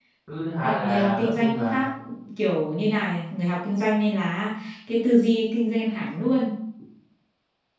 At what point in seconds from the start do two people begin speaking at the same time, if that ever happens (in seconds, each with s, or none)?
0.6 s